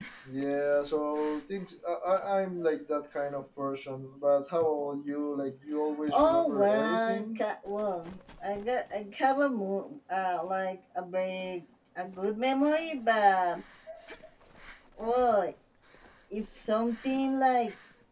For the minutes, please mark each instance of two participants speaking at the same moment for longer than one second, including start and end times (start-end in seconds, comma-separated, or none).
6.1-7.4